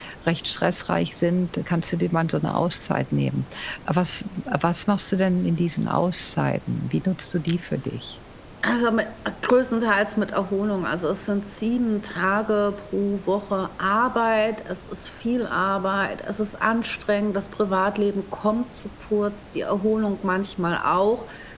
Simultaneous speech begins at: none

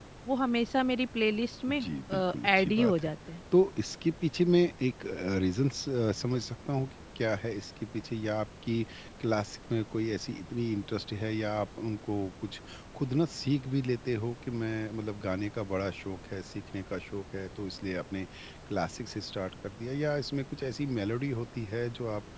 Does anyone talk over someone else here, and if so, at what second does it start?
2 s

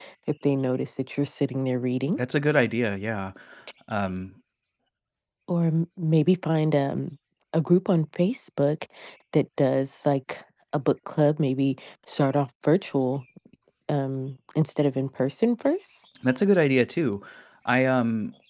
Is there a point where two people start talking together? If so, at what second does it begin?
none

